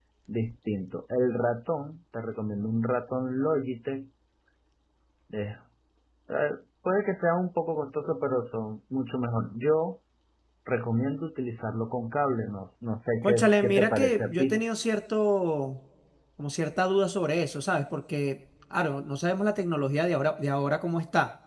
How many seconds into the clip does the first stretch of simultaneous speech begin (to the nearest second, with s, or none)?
13 s